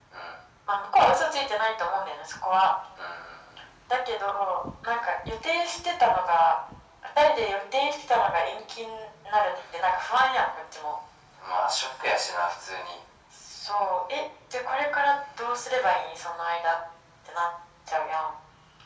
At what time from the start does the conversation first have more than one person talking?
none

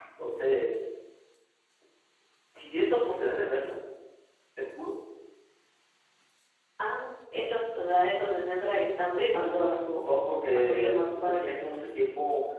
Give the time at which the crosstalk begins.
9.1 s

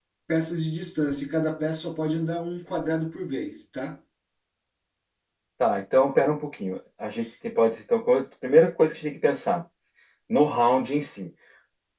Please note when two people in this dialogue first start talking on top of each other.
none

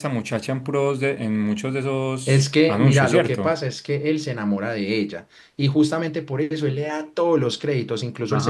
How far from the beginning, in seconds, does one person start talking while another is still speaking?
2.3 s

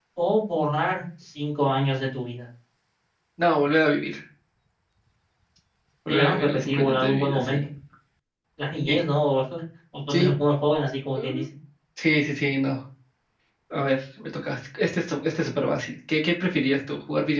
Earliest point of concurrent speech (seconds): 6.1 s

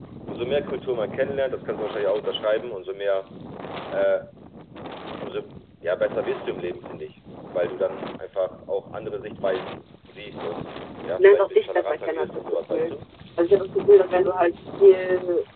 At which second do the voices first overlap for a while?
11.2 s

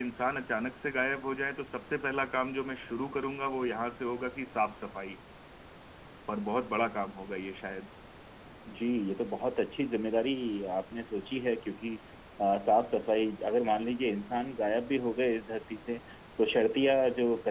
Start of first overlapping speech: none

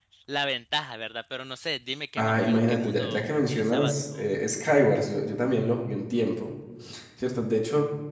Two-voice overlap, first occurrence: 2.2 s

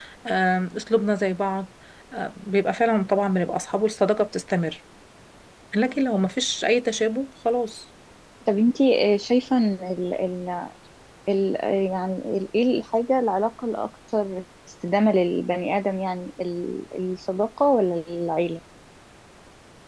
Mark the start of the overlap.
none

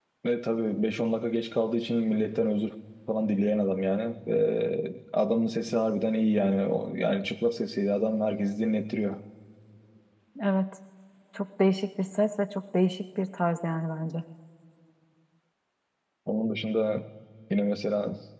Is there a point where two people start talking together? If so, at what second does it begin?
none

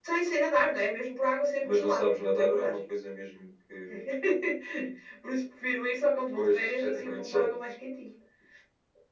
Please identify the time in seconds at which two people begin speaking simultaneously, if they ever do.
1.6 s

